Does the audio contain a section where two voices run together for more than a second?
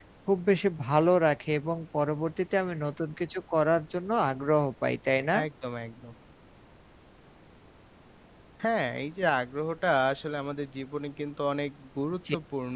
No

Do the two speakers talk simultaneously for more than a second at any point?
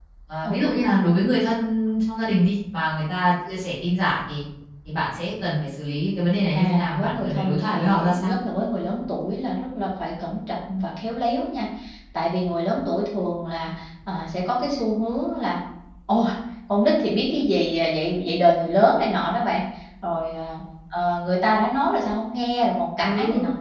Yes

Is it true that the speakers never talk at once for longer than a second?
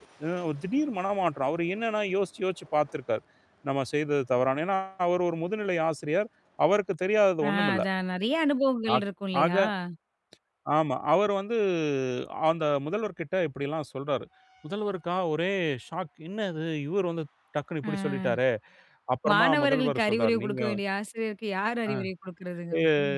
No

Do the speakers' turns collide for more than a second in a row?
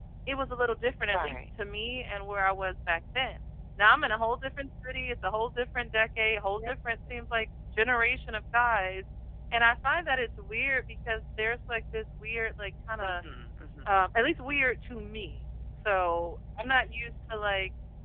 No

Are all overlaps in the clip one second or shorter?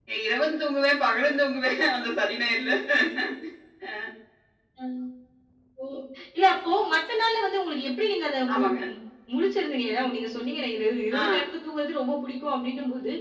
Yes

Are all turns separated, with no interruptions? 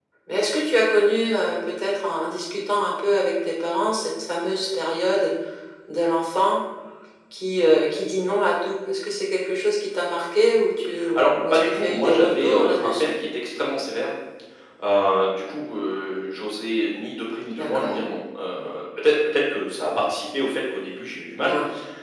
No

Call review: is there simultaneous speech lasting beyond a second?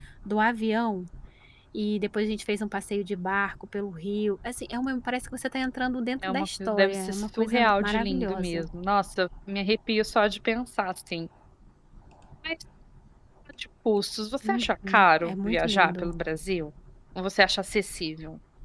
Yes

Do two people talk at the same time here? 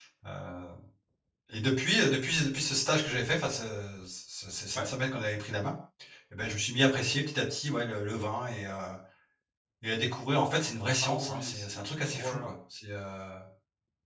Yes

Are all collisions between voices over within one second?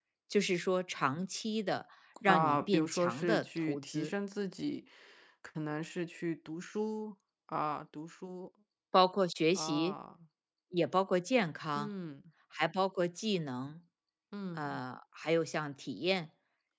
No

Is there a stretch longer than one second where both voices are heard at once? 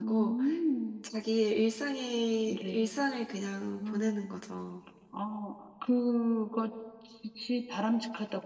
No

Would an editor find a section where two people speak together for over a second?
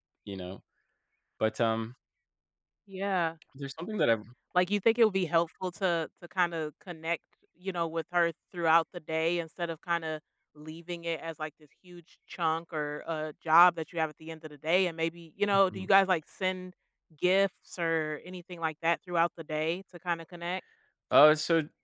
No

